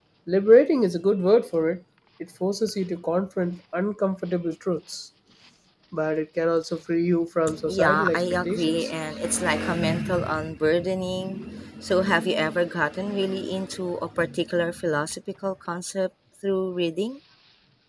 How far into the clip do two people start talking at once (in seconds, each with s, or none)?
7.5 s